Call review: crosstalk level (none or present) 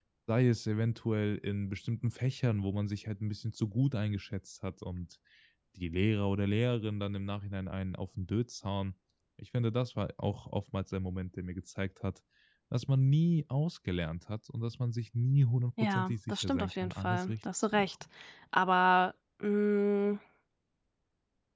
present